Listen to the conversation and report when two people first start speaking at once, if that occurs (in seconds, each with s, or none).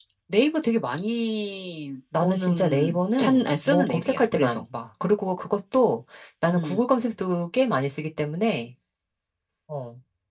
2.2 s